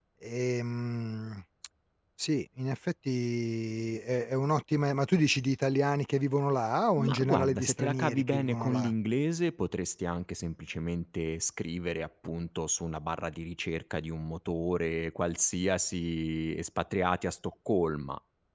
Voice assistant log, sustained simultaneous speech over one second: present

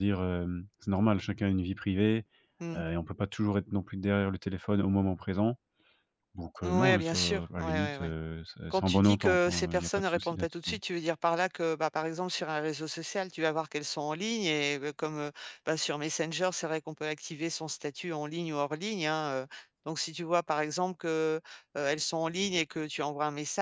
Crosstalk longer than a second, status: present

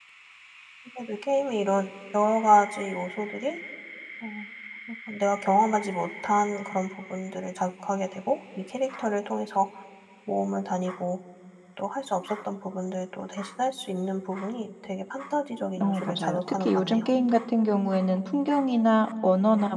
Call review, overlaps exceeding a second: present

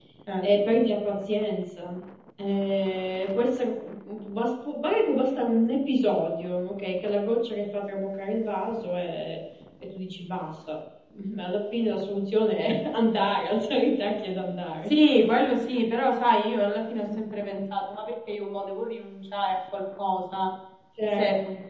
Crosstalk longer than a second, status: none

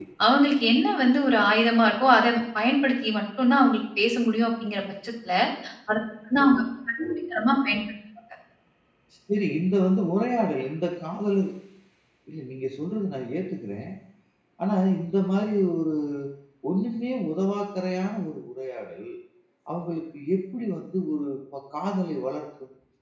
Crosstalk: none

